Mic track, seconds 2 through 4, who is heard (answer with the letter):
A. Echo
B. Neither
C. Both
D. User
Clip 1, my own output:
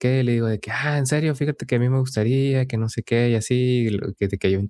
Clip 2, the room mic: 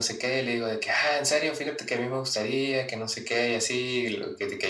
A